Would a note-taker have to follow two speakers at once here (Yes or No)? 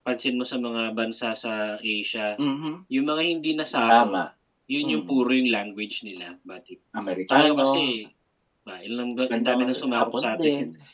Yes